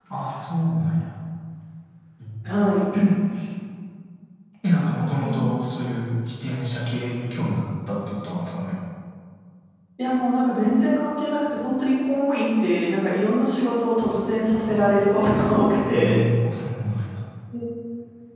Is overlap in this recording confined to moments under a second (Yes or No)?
Yes